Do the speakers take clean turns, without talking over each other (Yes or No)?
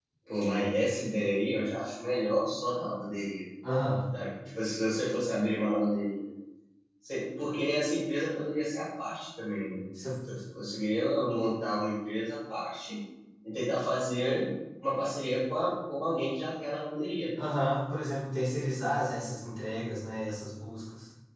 Yes